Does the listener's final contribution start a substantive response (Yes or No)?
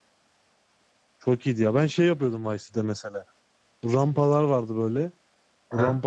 No